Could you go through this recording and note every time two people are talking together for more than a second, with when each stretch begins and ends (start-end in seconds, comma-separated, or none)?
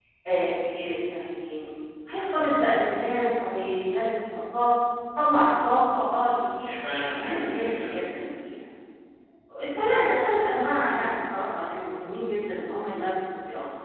6.6-8.0